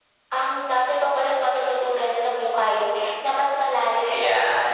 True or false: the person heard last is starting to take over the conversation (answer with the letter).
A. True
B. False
B